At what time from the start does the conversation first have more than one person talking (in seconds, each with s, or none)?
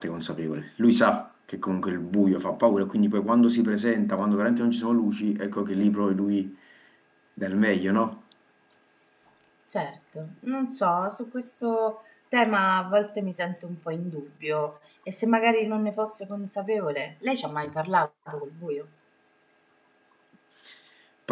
none